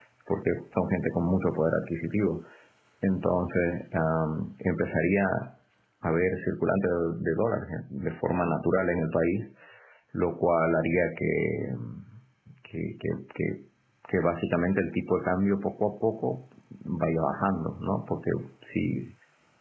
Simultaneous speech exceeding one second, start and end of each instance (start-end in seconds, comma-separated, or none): none